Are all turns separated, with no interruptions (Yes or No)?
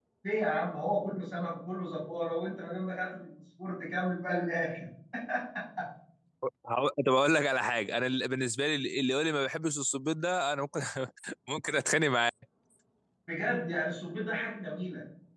Yes